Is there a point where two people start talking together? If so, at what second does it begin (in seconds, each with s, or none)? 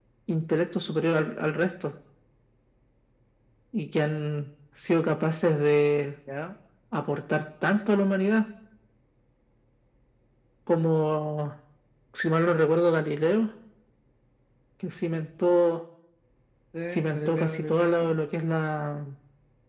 16.9 s